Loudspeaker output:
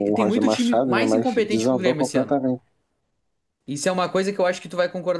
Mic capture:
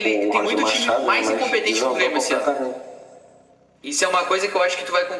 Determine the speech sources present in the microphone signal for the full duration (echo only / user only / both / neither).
echo only